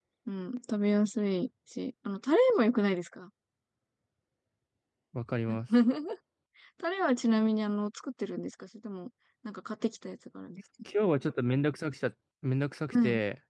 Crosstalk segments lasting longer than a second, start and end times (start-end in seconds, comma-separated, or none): none